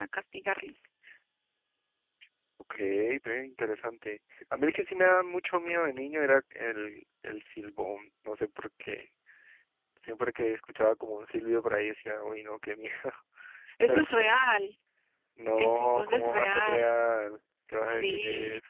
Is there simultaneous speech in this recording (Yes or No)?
Yes